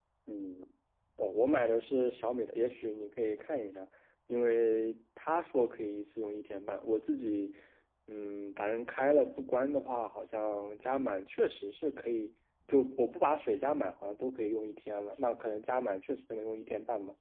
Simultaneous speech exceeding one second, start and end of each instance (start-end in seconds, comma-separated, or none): none